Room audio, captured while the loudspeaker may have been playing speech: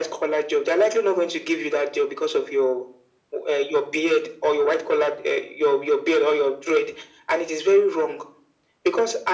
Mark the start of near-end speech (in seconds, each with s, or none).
none